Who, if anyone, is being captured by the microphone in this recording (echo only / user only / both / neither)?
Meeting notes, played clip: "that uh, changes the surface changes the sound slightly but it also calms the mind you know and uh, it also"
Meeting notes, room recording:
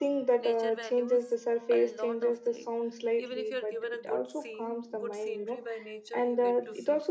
both